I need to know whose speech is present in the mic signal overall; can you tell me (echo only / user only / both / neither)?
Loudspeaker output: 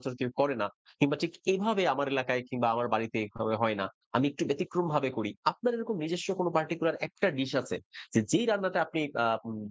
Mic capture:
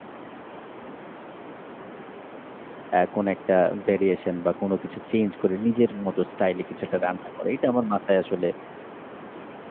user only